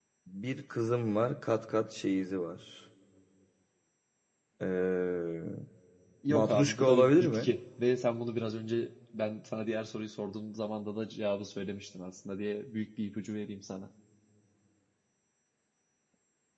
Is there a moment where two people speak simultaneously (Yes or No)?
Yes